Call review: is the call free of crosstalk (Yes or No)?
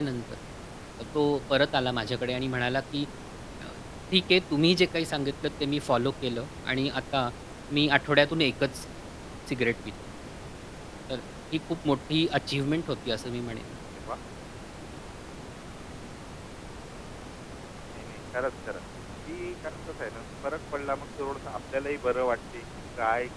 Yes